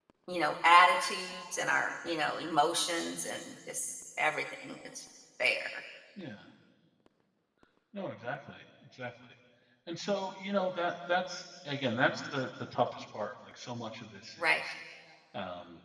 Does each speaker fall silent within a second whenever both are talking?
Yes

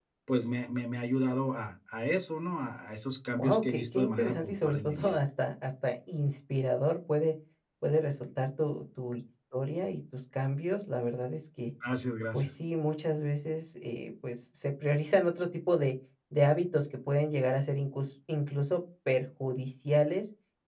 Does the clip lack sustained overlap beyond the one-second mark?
No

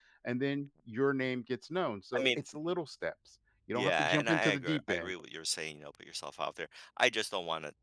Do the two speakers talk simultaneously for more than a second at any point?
Yes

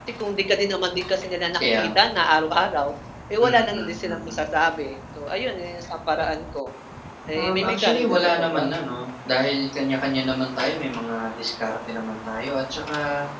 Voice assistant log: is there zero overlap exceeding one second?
No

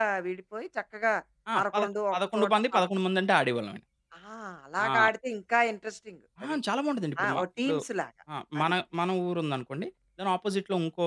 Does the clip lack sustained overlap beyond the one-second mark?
No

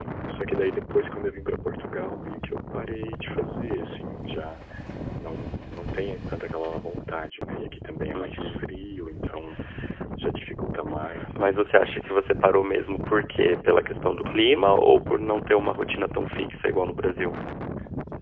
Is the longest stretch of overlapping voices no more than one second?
Yes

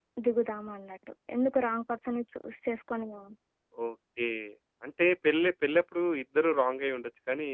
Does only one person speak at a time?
Yes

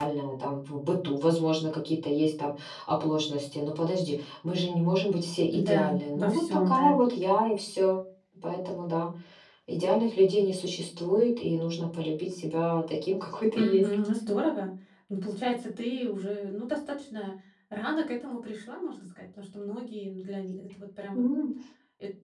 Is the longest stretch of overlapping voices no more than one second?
No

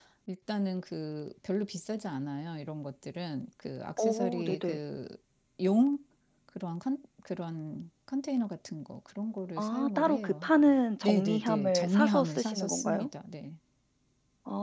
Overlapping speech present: Yes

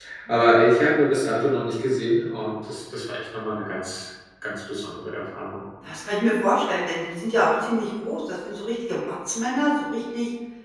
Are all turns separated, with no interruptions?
Yes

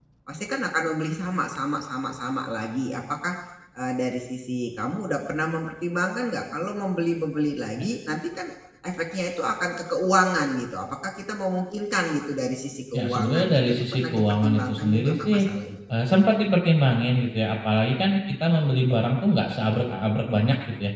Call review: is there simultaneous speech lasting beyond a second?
Yes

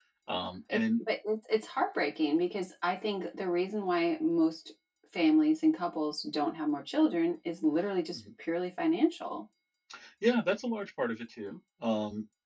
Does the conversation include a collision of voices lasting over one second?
No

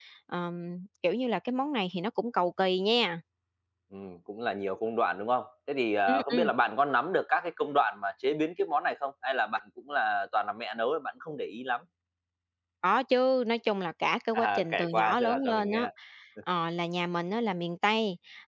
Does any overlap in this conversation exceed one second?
Yes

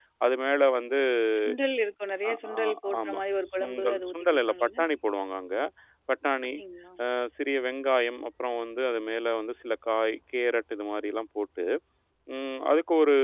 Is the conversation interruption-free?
No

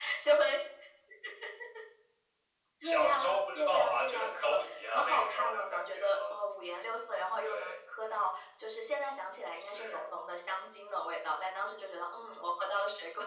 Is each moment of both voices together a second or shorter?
No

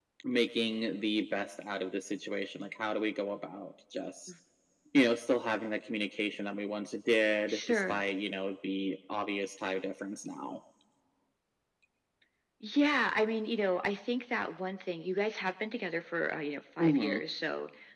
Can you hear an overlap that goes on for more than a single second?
No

